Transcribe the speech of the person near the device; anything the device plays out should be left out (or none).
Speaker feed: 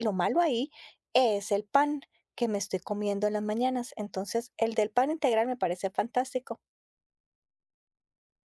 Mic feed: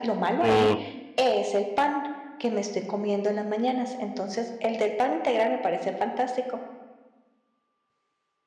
O